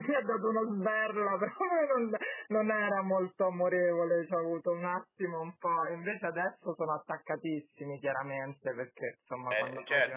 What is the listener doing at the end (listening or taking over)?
taking over